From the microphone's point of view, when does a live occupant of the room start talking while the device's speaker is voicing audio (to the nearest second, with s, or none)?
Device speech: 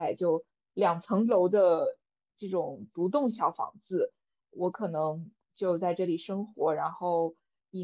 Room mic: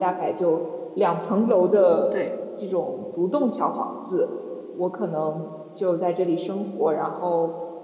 2 s